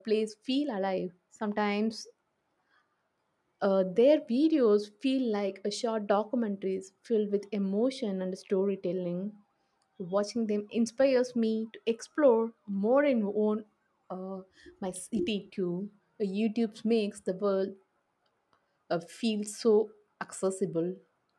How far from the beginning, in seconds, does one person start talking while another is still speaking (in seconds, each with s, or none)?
none